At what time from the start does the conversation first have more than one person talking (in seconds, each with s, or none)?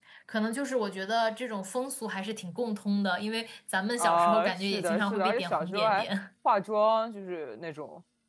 4.0 s